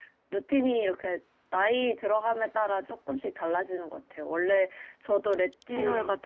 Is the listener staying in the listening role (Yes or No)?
Yes